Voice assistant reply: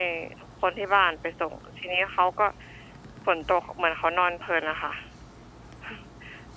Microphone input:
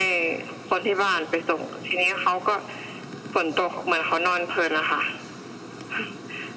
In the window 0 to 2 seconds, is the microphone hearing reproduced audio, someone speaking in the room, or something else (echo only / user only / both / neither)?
echo only